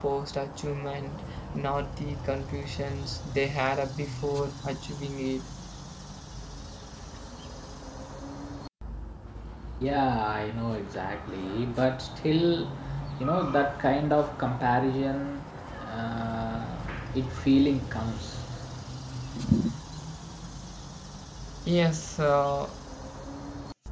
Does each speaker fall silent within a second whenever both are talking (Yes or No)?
Yes